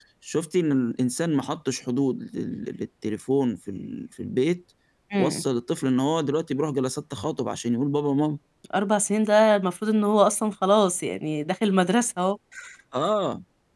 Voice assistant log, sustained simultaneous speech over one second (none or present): none